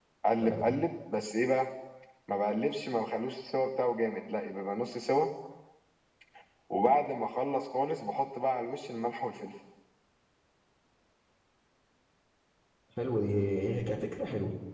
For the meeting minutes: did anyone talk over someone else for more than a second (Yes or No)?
No